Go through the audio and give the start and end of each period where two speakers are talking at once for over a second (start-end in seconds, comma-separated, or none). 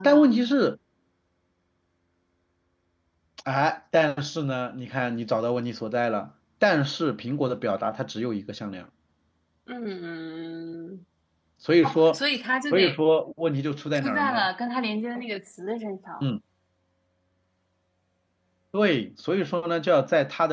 none